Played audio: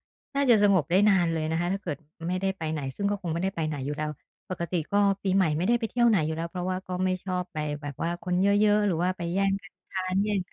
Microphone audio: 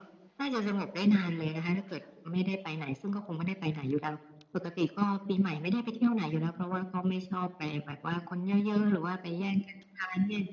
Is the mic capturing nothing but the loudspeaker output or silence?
Yes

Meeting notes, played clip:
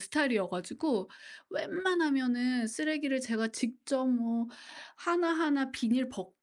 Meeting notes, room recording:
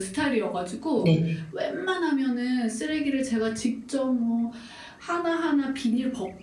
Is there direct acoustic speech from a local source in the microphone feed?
Yes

